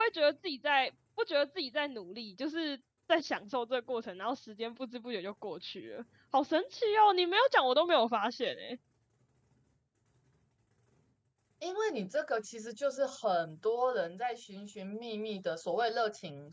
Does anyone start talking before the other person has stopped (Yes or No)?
No